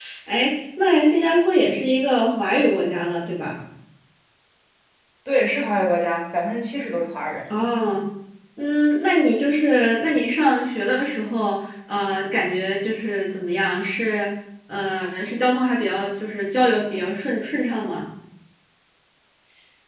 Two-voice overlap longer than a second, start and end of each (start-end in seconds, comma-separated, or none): none